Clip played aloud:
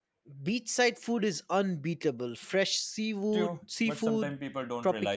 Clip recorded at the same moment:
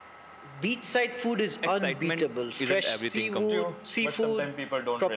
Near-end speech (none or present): present